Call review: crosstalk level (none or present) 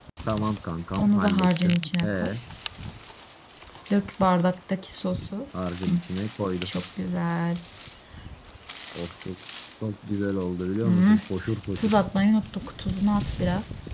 present